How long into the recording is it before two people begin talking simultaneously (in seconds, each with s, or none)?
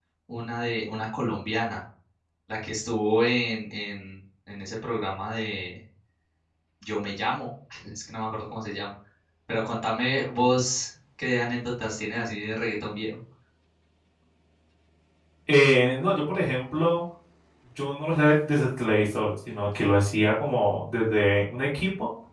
none